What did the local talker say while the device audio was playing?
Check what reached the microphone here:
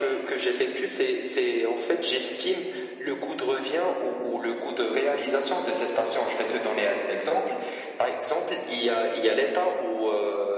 none

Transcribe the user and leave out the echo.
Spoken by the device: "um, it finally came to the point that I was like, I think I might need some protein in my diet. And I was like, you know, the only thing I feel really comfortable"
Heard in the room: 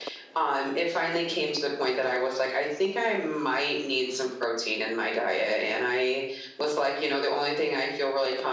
none

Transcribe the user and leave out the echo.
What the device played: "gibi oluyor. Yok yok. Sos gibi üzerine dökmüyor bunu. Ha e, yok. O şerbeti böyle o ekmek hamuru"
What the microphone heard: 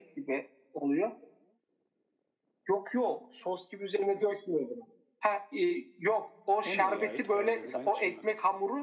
O nereye ait? Hayrabolu ben hiç yemedim.

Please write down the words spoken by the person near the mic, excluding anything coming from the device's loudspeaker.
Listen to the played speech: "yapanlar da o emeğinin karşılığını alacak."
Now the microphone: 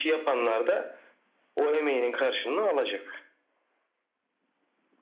none

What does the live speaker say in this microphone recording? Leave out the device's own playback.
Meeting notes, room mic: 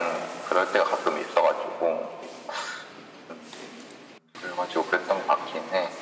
none

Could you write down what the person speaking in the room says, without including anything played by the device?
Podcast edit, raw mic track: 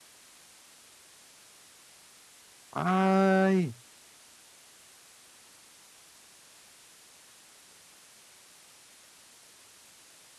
Ay.

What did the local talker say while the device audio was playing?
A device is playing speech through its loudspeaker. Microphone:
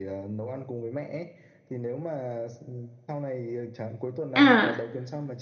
à

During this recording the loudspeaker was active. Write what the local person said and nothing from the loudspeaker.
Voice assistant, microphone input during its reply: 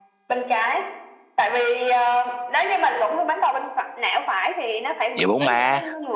vậy bóng ma

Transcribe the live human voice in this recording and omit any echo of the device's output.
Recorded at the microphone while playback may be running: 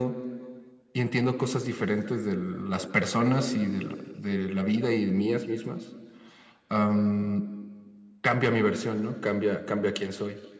none

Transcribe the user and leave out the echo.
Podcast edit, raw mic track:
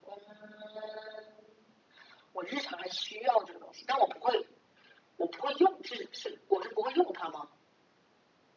none

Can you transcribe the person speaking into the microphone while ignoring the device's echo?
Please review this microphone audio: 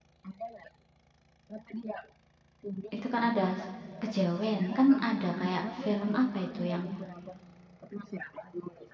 Itu kan ada kejawen, kan ada kayak film apa itu yang

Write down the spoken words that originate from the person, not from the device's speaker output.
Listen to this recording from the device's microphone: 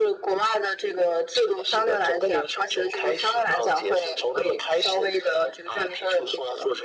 none

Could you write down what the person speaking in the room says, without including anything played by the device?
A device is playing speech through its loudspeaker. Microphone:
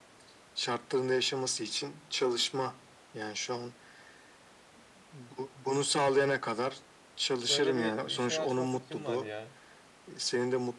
böyle bir e, şey açma fikrim var ya.

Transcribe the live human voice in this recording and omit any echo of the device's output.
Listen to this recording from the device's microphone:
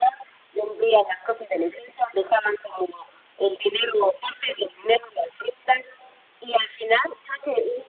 none

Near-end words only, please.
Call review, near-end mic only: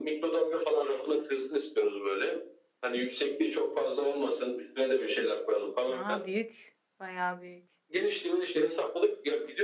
Aa büyük. Bayağı büyük.

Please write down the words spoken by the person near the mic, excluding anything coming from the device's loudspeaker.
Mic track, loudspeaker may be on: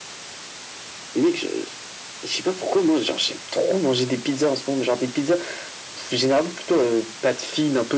none

